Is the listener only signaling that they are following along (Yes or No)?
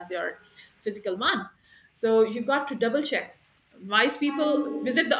Yes